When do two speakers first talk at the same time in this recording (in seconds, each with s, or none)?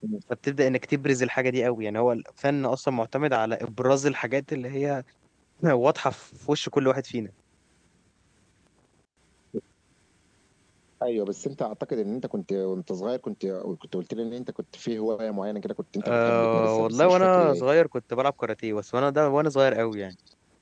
16.0 s